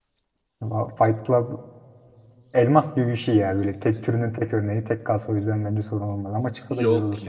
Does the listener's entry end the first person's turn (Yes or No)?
Yes